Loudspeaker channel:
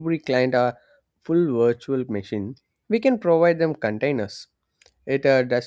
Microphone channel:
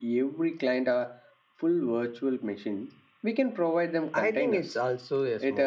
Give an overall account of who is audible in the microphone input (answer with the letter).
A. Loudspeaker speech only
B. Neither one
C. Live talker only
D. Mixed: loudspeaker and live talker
D